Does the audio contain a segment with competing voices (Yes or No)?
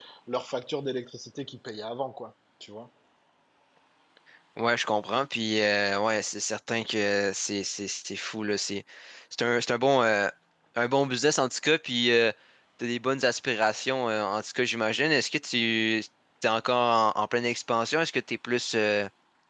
No